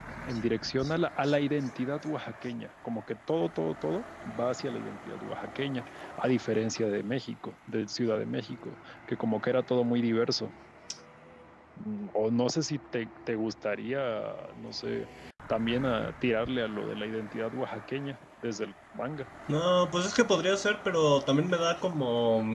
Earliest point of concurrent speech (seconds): none

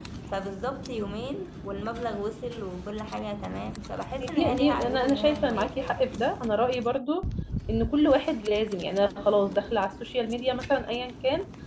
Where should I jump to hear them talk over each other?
4.2 s

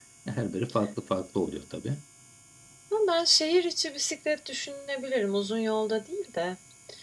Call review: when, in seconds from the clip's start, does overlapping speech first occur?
none

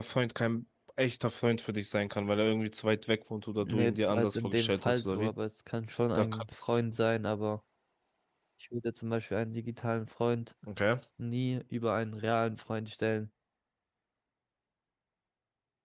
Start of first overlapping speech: 3.6 s

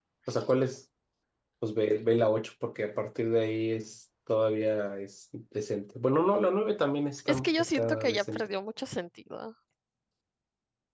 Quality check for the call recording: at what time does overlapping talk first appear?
7.3 s

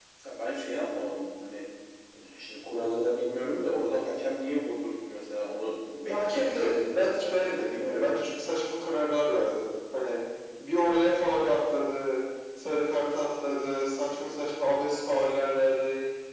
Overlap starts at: 6.1 s

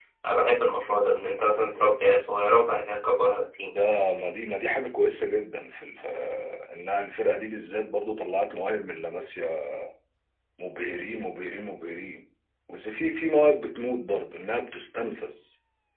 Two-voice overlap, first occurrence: none

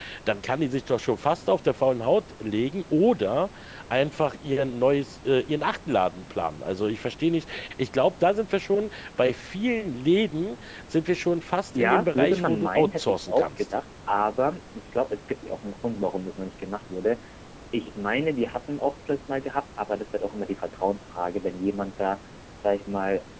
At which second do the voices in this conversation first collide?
11.7 s

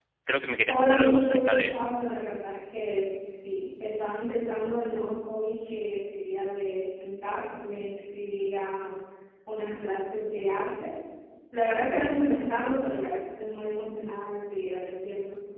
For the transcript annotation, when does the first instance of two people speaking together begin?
0.7 s

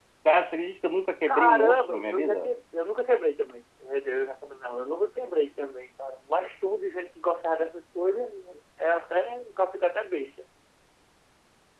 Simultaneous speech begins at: 1.3 s

